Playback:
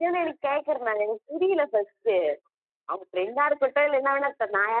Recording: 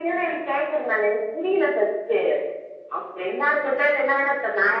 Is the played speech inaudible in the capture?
No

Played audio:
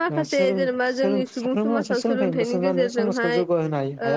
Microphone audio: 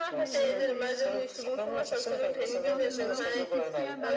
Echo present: Yes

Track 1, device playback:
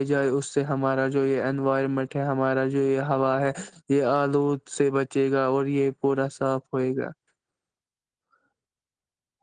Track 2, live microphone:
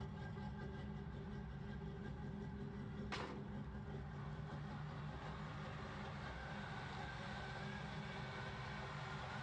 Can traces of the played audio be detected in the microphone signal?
No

